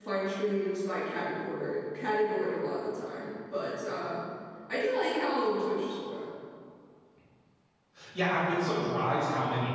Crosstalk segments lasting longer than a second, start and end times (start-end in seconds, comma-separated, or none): none